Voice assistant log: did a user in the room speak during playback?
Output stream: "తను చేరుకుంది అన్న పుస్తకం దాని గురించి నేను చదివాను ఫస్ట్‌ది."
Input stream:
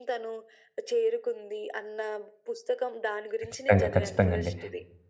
Yes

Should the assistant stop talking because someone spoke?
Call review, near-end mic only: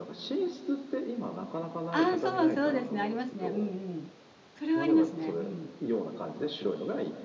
Yes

